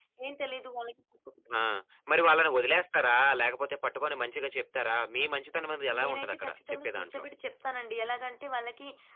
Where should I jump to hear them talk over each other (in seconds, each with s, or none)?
5.9 s